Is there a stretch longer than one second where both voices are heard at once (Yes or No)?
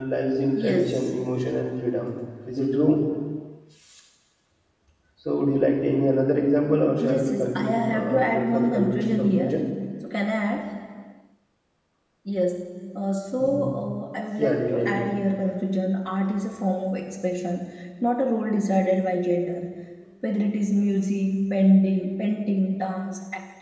Yes